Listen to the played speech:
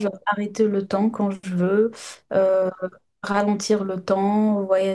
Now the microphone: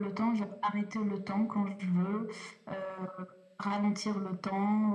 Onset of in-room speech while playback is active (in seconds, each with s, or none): none